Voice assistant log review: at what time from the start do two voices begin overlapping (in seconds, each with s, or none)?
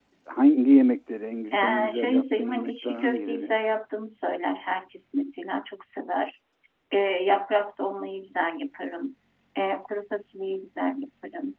1.5 s